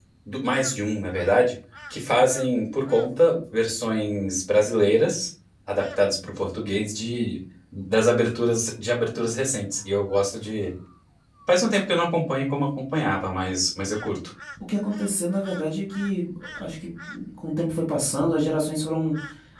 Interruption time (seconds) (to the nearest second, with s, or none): none